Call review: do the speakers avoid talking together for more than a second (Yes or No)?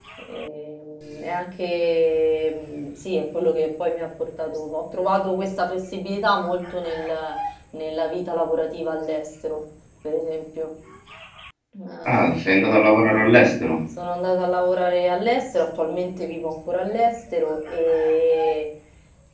Yes